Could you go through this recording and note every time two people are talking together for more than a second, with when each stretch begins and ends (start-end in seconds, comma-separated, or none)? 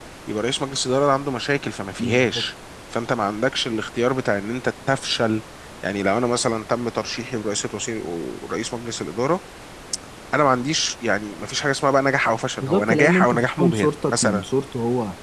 12.6-14.4